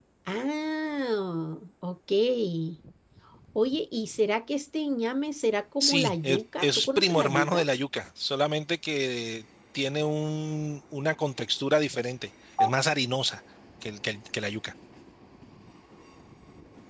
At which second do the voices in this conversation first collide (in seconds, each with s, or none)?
5.8 s